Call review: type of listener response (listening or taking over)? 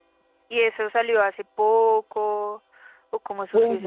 taking over